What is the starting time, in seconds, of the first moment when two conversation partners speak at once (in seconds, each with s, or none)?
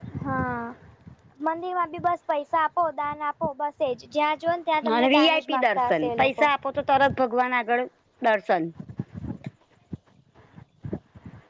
5.0 s